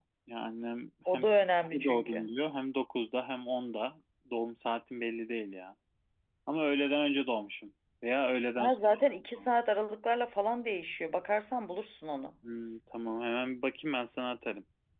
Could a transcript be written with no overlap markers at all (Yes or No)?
No